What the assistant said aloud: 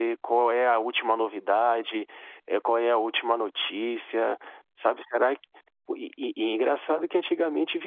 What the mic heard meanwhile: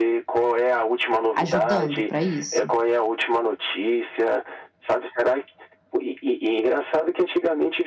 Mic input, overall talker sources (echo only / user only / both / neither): both